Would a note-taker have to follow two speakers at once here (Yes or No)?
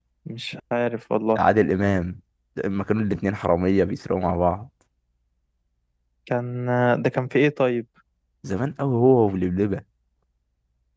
No